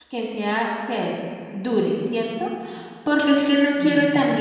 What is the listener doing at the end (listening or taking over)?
listening